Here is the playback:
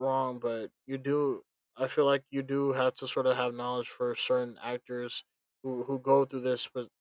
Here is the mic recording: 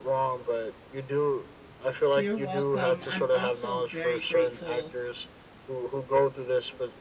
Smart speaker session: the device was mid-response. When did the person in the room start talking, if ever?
2.1 s

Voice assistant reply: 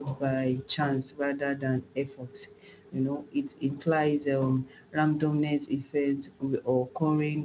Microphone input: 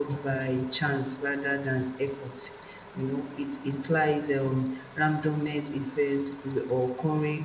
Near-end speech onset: none

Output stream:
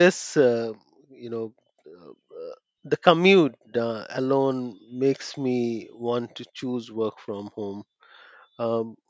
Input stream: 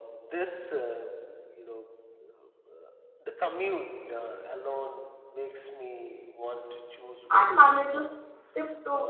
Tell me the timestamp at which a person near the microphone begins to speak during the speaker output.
7.3 s

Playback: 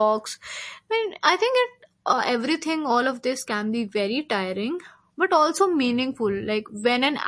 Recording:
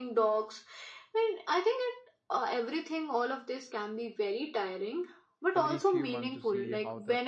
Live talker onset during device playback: 5.5 s

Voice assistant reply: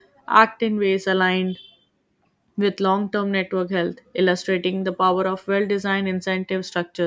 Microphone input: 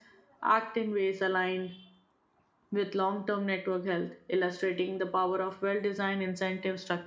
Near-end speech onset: none

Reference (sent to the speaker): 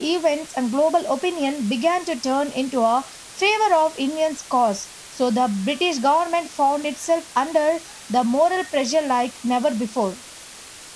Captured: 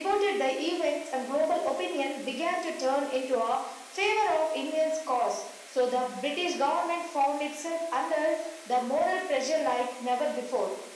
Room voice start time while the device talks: none

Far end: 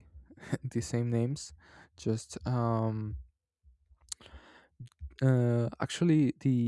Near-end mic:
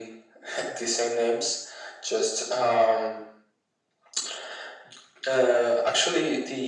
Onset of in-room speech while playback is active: none

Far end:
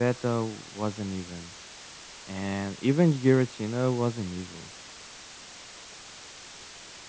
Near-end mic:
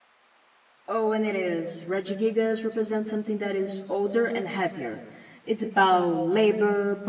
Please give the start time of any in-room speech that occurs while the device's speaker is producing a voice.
0.8 s

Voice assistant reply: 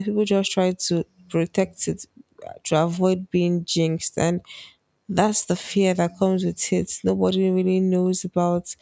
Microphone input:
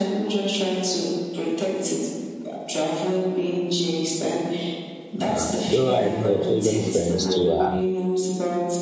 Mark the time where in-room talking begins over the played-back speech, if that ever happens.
5.2 s

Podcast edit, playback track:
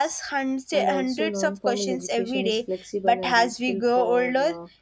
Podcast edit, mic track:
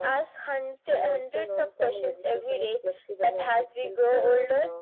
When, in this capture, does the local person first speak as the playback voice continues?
none

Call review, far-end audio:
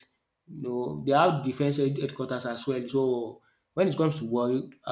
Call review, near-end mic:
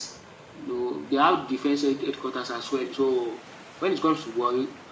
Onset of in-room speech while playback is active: none

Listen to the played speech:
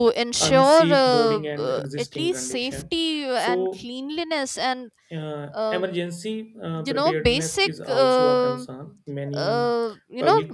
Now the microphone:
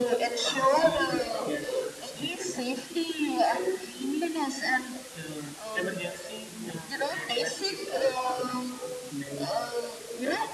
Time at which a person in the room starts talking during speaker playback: none

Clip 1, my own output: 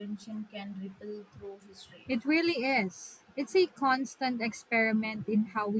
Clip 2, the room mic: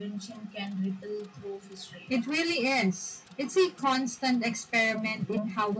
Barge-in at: none

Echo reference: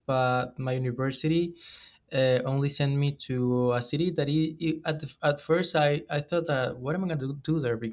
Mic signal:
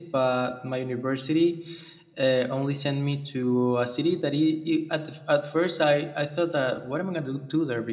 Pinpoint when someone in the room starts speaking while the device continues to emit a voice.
none

